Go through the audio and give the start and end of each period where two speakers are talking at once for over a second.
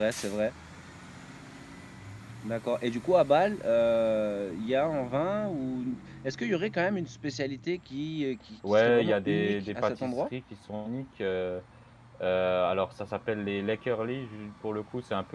8.7-10.3

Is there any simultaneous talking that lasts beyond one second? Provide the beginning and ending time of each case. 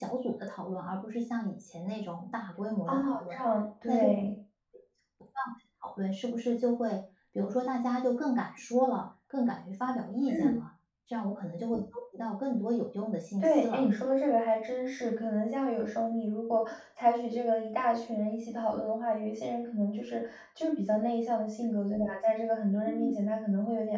none

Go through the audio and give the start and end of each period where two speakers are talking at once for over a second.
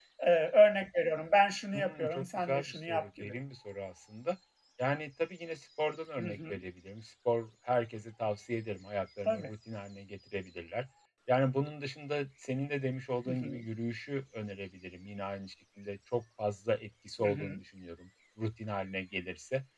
1.7-3.3

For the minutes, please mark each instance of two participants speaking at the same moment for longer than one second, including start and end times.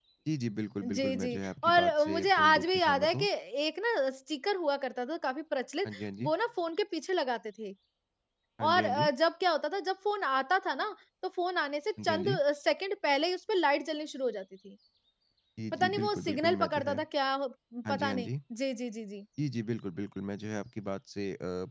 0.8-3.2, 15.7-17.0

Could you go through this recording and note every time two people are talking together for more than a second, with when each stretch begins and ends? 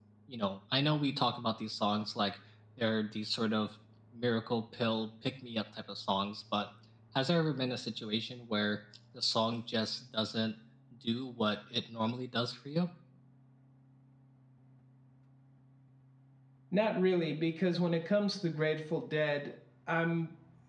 none

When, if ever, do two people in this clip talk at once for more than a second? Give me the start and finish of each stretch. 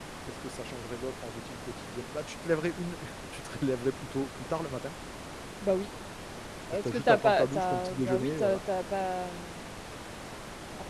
6.8-8.6

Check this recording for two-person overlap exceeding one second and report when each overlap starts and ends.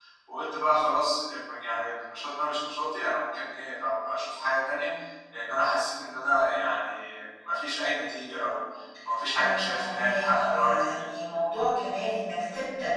9.4-11.4

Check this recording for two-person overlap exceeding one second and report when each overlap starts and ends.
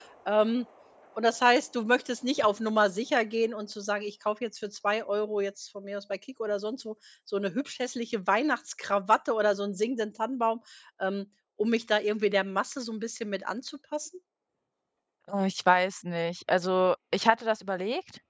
none

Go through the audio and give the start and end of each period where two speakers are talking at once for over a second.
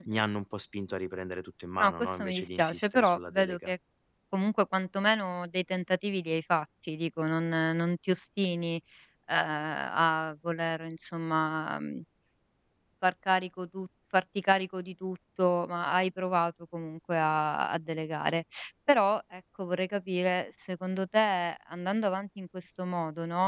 1.8-3.7

